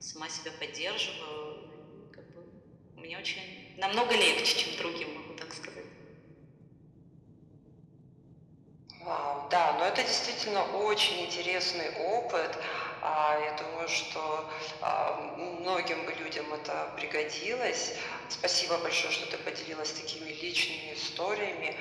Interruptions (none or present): none